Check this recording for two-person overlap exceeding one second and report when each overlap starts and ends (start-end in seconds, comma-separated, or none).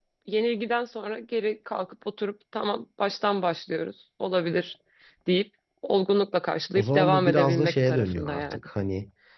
6.8-8.6